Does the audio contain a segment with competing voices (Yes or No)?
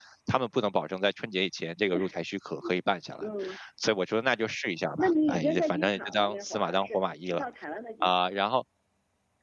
Yes